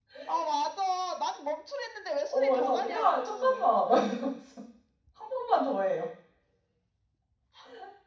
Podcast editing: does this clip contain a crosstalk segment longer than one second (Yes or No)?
Yes